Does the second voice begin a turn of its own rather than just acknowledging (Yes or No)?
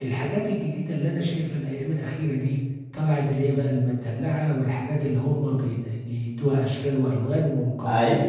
No